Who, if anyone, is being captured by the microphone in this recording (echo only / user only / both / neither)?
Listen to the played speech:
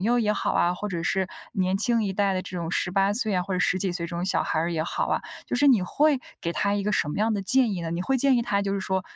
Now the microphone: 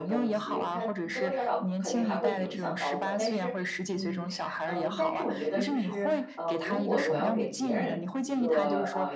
both